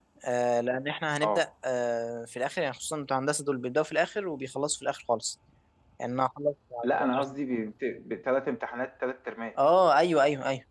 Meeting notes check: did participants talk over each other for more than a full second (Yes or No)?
No